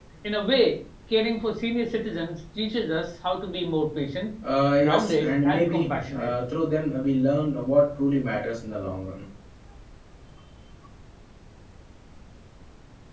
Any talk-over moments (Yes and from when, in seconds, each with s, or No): Yes, from 4.8 s